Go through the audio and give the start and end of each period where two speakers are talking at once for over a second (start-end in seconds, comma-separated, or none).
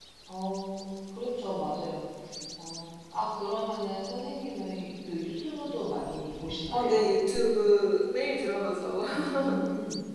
none